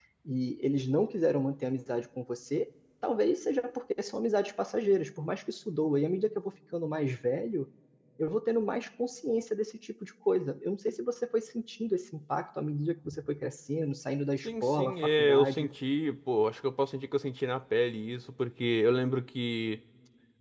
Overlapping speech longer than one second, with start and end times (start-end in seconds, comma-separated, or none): 14.4-15.7